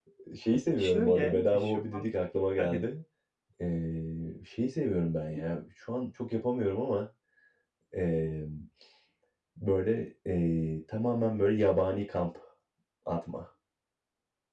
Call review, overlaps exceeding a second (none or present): present